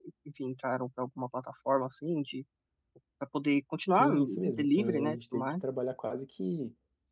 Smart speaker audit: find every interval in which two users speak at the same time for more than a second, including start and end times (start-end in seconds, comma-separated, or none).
3.9-5.6